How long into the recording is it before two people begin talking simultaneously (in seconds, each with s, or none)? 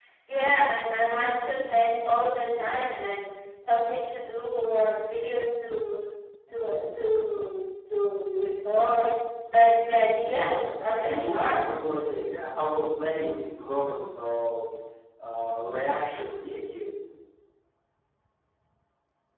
10.1 s